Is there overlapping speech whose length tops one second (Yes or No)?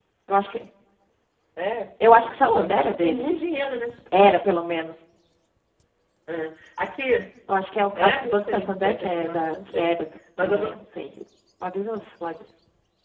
Yes